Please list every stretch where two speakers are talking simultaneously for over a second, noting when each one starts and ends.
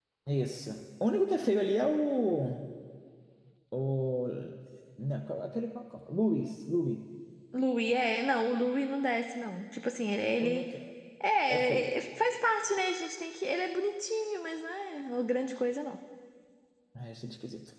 none

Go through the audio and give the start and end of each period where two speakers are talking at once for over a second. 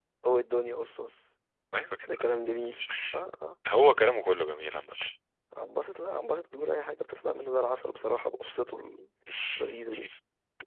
none

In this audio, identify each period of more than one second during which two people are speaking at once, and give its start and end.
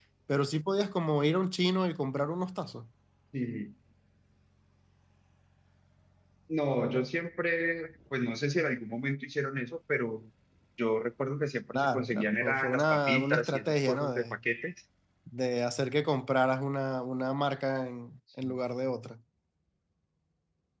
11.8-14.4

